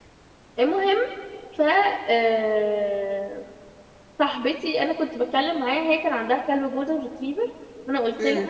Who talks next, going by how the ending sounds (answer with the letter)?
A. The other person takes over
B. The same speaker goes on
B